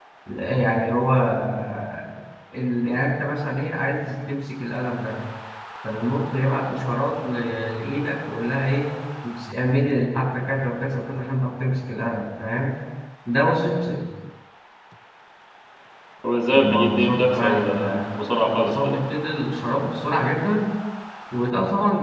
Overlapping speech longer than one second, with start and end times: 16.5-18.0

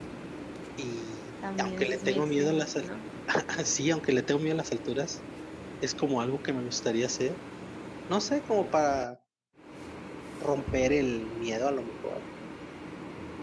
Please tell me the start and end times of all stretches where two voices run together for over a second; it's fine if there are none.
1.6-2.9

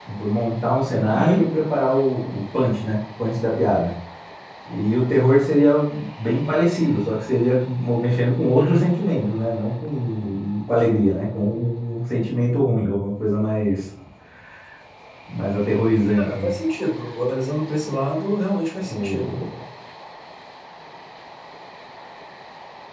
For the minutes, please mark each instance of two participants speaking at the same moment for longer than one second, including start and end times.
none

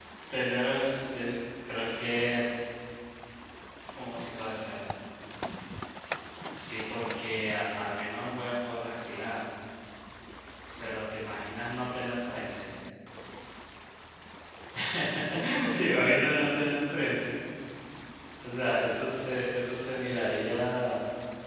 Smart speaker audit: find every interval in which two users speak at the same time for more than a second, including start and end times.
15.8-17.2

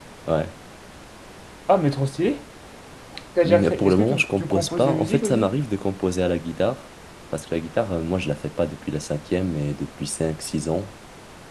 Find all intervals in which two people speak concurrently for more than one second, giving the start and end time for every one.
3.4-5.5

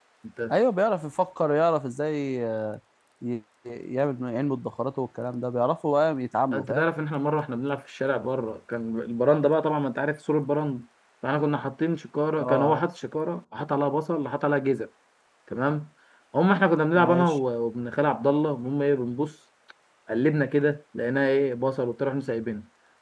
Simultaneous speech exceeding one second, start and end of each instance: none

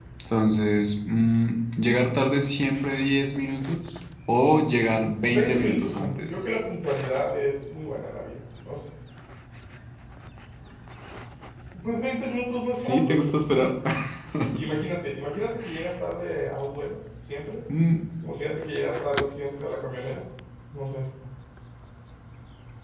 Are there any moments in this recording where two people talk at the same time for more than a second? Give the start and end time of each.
5.3-6.5

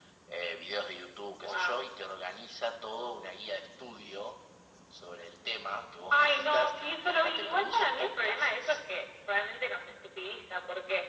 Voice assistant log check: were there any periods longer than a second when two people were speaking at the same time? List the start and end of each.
6.1-8.8

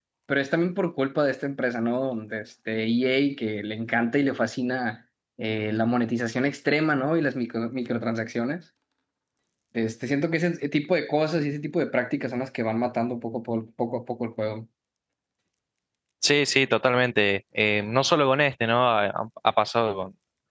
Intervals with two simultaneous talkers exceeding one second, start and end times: none

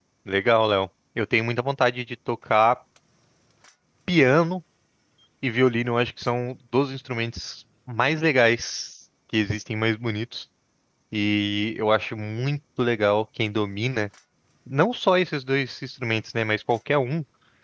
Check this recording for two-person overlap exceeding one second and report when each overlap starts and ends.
none

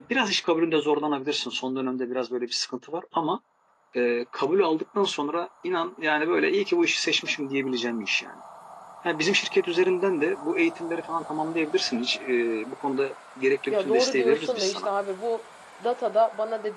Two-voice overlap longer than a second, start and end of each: 13.7-14.9

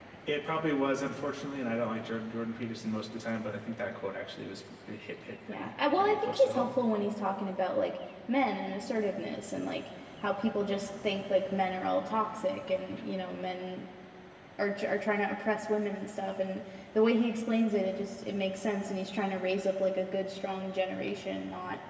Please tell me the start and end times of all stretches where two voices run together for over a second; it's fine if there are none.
5.5-6.8

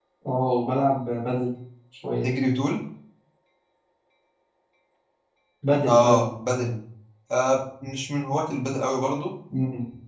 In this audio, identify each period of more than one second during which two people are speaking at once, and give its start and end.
none

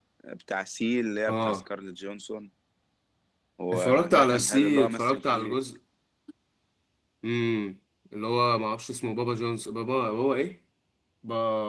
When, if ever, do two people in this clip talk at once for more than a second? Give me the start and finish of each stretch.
3.7-5.5

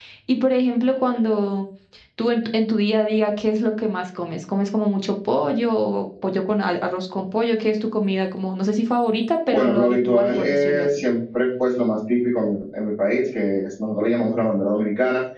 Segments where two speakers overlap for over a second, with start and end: 9.5-11.0

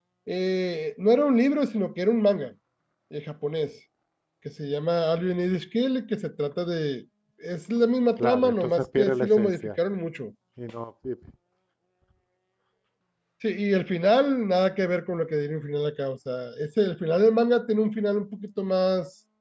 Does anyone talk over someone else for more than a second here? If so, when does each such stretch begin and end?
8.2-9.7

